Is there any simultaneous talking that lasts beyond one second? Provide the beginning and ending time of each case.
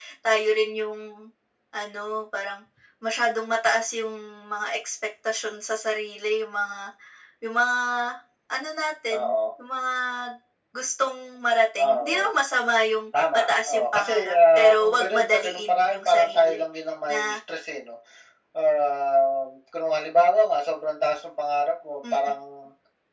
13.3-16.6

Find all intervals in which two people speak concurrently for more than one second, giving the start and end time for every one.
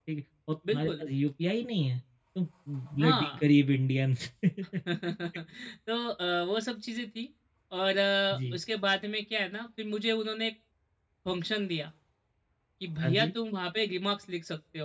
none

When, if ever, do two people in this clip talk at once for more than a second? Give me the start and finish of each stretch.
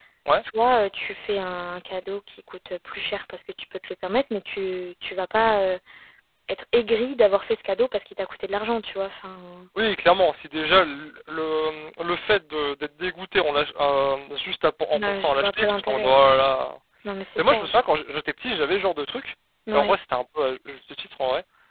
14.9-16.2

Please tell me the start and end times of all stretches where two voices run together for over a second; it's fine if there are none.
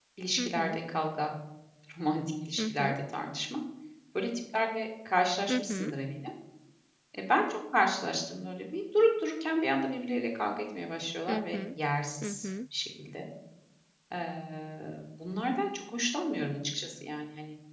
none

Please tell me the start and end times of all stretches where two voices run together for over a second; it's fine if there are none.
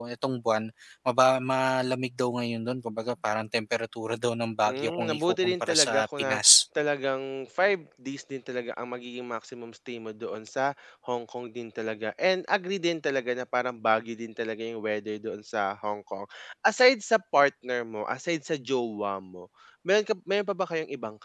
4.6-6.6

